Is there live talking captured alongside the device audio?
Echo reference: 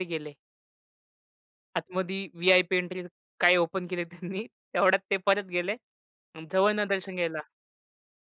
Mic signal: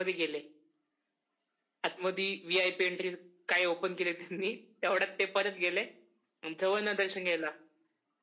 No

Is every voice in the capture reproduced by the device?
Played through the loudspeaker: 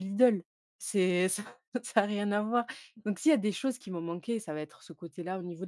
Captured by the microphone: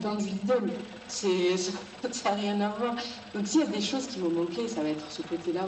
Yes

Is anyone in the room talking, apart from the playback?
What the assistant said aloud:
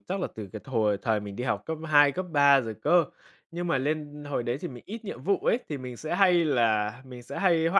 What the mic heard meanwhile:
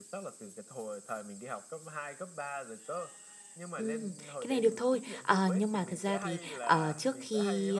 Yes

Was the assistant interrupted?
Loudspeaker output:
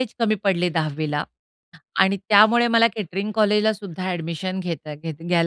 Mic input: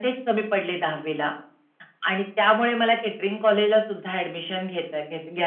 No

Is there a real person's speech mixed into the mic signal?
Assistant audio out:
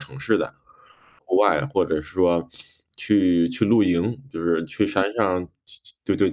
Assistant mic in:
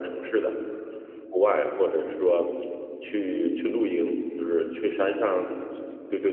No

